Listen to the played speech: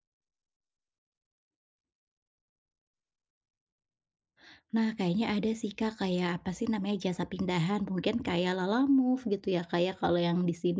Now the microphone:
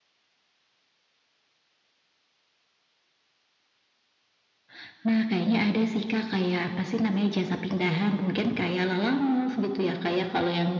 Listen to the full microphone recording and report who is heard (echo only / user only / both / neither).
echo only